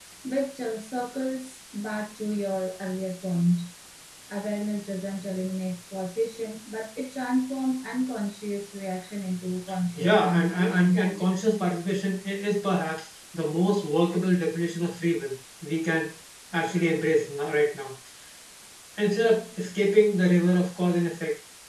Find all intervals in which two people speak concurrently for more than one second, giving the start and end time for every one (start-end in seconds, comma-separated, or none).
9.9-11.2